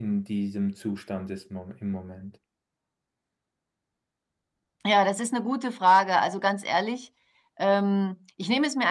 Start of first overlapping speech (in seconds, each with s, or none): none